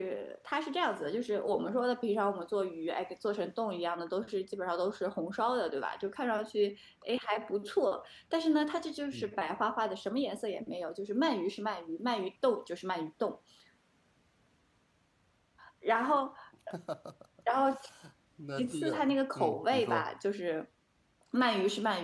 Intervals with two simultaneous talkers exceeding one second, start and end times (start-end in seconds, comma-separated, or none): 18.6-20.1